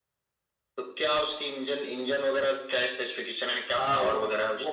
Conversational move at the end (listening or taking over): taking over